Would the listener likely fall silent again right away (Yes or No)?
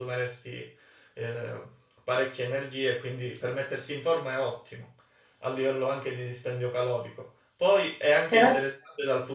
Yes